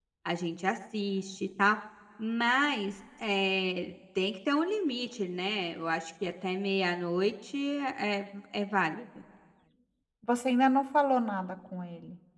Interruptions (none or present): none